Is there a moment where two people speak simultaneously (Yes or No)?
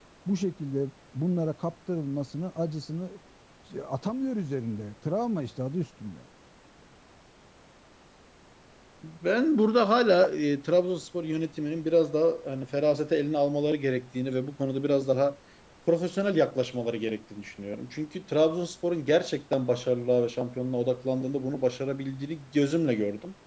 No